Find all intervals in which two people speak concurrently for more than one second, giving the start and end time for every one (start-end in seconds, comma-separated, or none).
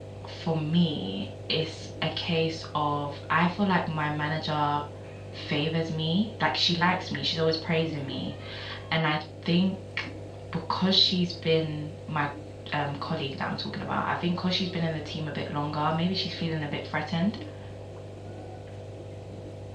none